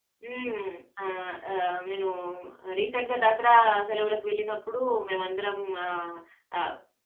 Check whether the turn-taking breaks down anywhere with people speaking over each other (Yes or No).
No